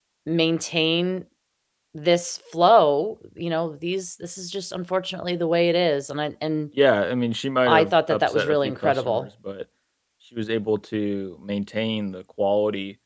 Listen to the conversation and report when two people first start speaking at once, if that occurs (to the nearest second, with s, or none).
8 s